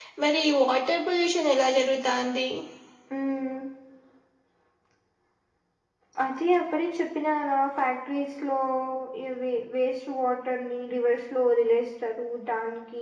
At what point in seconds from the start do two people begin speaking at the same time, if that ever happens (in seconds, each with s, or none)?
none